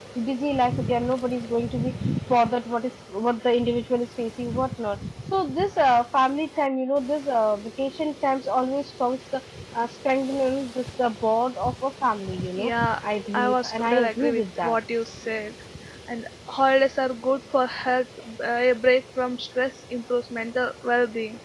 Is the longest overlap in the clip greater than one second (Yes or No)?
Yes